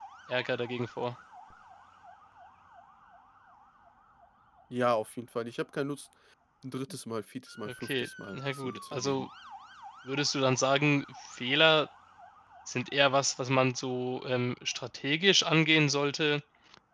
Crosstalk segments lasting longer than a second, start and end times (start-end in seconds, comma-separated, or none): 7.7-9.3